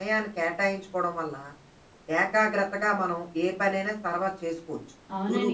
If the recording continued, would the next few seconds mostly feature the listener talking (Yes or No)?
Yes